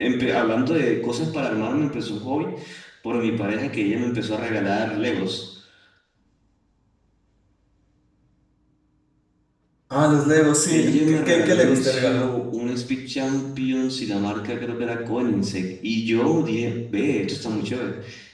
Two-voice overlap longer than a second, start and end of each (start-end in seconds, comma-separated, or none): 10.7-12.2